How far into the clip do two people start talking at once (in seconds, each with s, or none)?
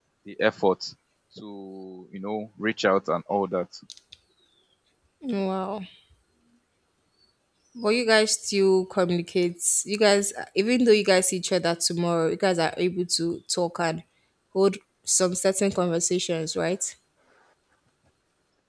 none